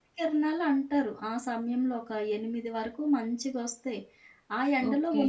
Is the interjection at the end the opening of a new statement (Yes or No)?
No